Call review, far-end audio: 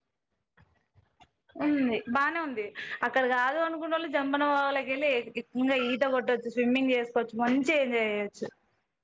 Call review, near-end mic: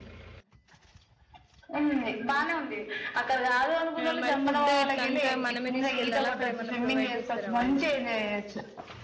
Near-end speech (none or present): present